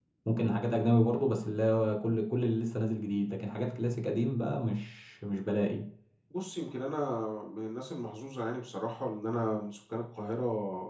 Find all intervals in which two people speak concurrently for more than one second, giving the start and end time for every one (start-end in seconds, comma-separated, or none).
none